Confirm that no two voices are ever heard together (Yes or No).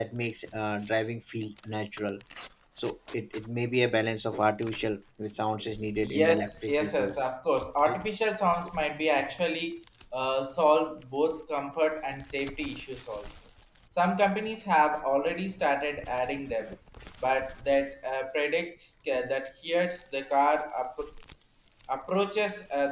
No